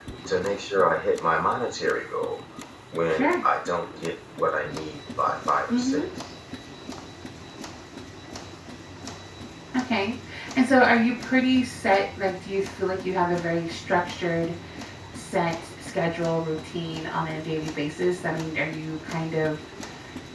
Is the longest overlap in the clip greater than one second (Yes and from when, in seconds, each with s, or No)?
No